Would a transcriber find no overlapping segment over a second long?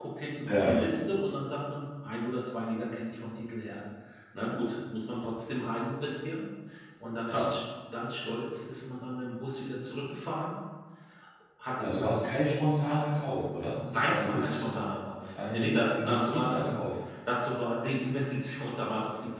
No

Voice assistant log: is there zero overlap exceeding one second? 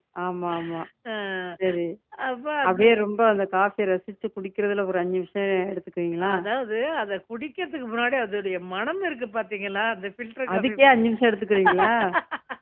Yes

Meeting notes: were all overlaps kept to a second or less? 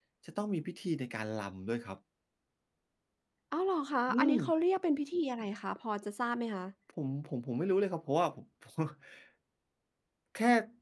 Yes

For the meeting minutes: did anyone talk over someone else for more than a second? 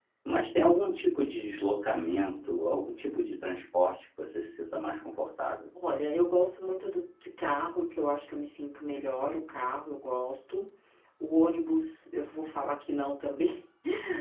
No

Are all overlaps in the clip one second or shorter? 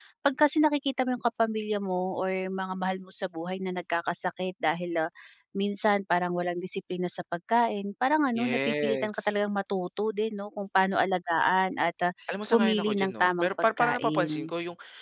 No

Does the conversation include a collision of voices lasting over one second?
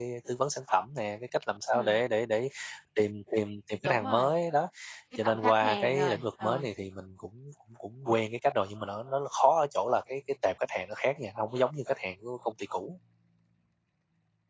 Yes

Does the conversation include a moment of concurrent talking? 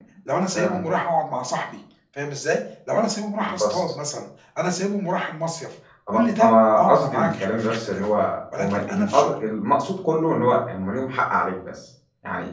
Yes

